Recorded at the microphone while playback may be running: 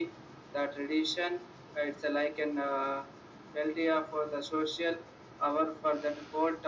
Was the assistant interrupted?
No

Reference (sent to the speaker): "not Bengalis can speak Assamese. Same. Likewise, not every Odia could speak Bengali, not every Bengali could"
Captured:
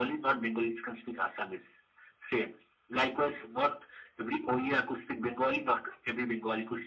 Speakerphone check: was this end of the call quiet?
Yes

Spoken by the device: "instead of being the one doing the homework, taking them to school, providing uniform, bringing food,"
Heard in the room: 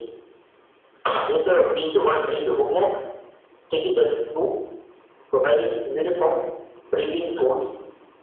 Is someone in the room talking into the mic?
No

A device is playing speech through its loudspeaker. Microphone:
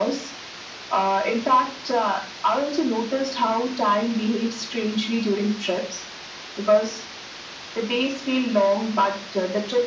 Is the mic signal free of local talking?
Yes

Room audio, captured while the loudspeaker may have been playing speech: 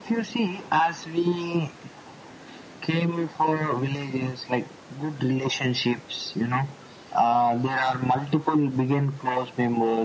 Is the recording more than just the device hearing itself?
No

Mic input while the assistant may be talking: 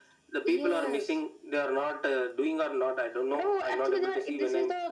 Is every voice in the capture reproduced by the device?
Yes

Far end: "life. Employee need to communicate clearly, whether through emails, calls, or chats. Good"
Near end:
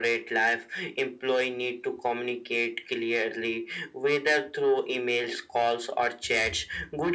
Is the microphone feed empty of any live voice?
Yes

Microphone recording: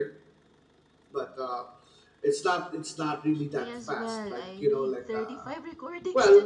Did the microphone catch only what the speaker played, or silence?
No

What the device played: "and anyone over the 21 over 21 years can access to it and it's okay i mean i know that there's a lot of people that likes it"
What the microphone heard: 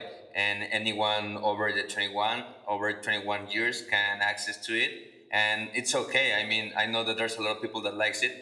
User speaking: No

